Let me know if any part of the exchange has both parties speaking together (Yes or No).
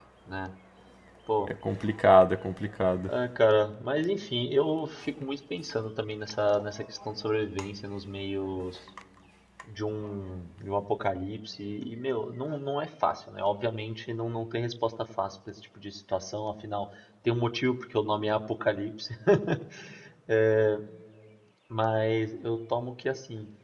No